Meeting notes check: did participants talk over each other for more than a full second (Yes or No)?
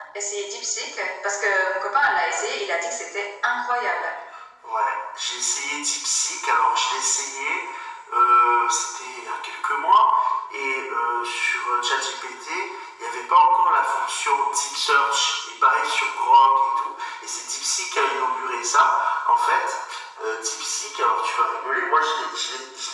No